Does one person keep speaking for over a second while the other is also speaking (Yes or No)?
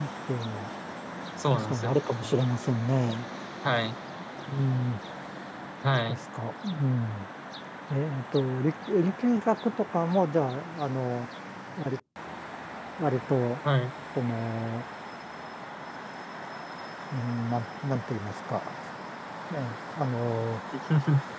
No